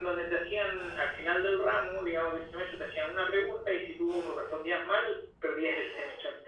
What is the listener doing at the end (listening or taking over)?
taking over